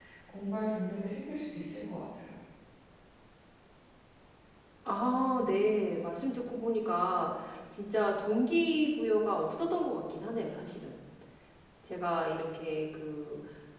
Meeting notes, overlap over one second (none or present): none